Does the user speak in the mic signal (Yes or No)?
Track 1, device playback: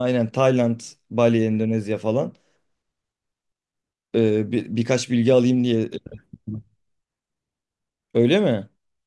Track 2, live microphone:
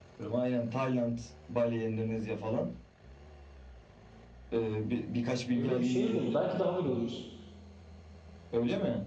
Yes